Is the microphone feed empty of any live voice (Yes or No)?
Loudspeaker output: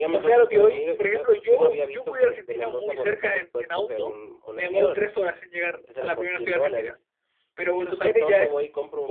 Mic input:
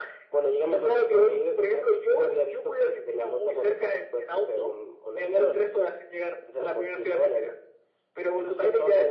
Yes